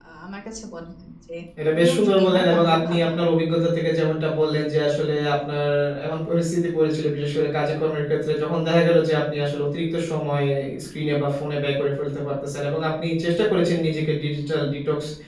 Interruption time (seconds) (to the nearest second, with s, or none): 2 s